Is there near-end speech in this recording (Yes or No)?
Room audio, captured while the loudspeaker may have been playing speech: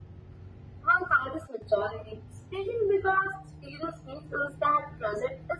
No